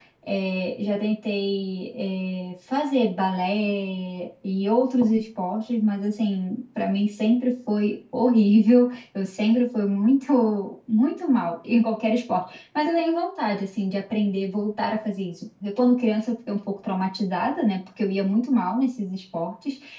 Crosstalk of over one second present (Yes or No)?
No